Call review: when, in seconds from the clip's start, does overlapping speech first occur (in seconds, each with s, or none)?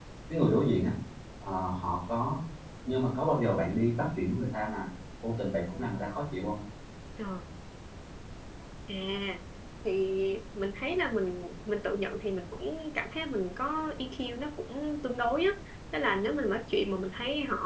none